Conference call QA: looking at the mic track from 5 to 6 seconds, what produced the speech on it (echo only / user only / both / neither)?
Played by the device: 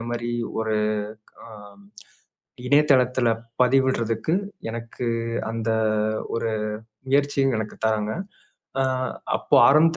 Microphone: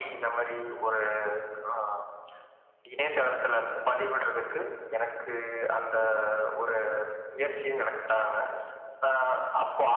echo only